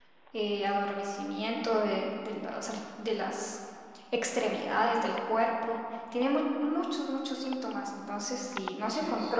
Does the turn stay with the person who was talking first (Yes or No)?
Yes